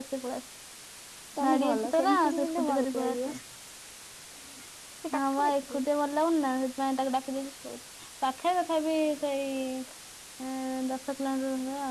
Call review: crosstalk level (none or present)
present